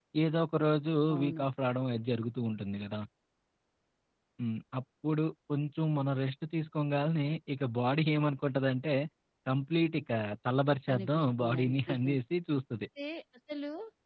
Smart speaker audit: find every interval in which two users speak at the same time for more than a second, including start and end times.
10.9-12.2

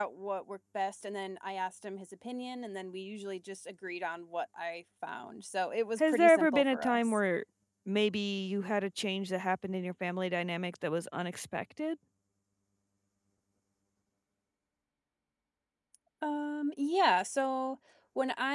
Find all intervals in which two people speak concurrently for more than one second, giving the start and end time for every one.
6.0-7.2

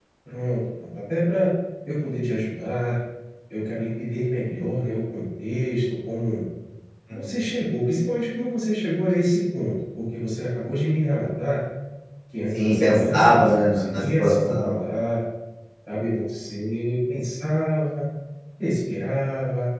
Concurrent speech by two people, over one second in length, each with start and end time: 12.6-14.8

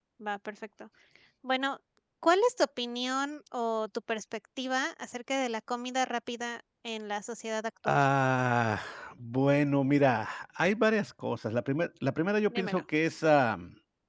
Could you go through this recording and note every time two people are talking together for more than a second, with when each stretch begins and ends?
none

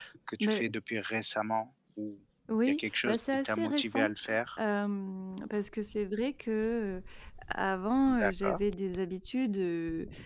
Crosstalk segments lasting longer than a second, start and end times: 2.7-4.1

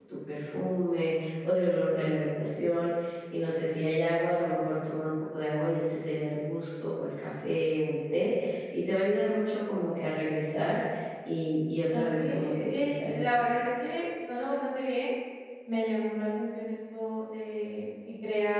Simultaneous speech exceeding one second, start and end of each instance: 11.9-13.2

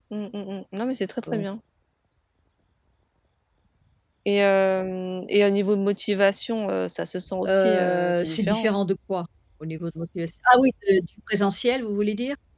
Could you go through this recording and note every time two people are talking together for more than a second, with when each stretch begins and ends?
7.5-8.7

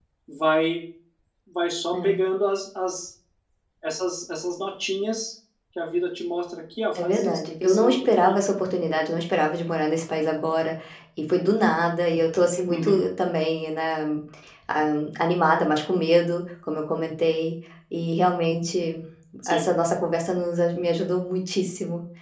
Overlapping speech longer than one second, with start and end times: 7.0-8.3

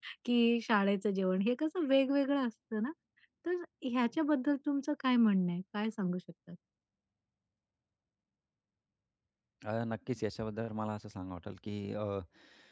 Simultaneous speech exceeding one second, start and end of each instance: none

